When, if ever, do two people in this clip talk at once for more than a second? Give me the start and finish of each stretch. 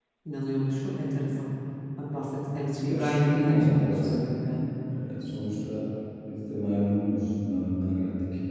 2.9-4.2

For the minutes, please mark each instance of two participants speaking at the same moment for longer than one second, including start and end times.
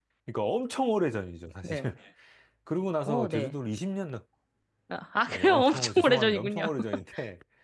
5.3-6.6

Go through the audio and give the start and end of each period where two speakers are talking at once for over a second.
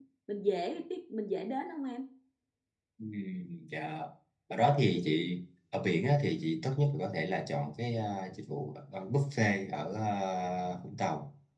none

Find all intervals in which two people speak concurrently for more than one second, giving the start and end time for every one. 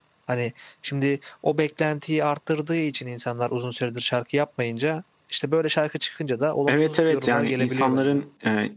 6.7-8.2

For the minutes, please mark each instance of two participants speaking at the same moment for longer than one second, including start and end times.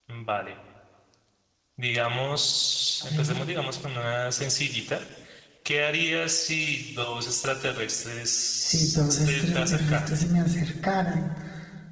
8.6-10.1

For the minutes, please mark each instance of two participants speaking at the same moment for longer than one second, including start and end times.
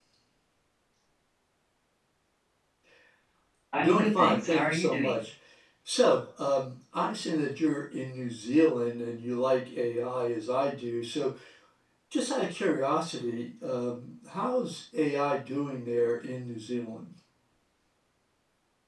3.8-5.2

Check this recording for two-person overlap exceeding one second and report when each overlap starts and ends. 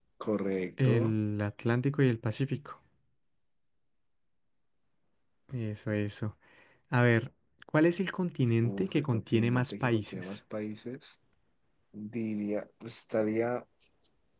8.6-10.4

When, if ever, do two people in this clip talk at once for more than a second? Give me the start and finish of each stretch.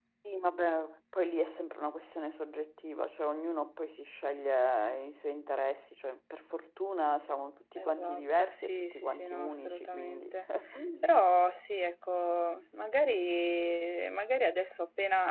7.8-10.3

